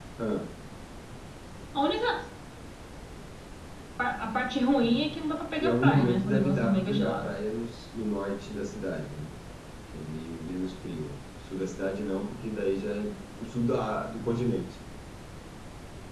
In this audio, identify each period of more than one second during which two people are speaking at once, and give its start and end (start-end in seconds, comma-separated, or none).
5.6-7.3